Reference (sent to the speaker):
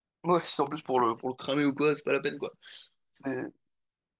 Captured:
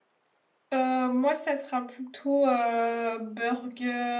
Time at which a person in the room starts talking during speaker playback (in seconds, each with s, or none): 0.7 s